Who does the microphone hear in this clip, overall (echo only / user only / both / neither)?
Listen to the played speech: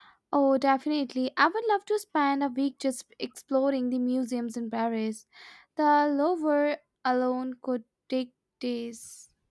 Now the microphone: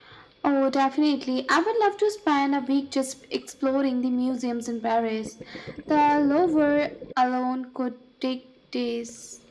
echo only